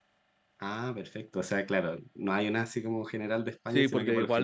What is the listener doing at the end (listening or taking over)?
taking over